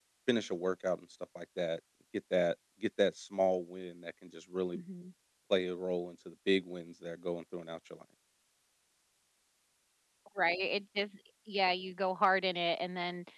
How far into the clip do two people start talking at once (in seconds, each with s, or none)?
none